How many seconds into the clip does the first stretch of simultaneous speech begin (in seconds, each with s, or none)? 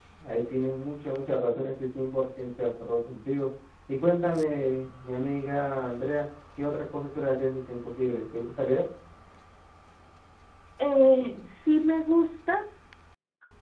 none